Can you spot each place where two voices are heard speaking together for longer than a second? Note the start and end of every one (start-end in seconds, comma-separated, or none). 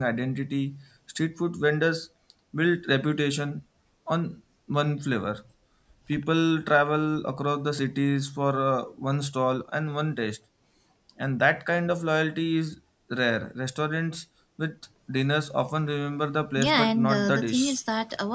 16.6-17.8